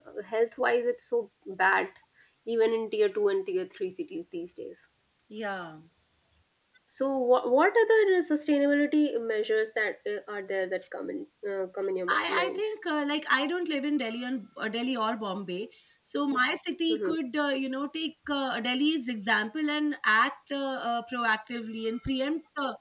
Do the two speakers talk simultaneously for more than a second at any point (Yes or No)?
No